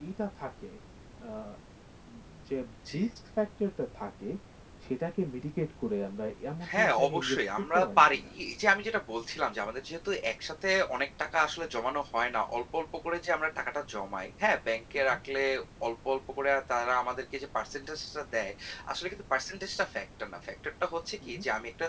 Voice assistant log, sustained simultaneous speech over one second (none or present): present